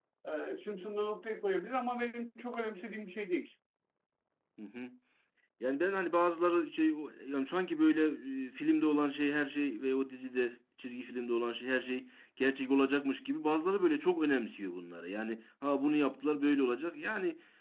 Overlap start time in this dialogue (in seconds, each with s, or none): none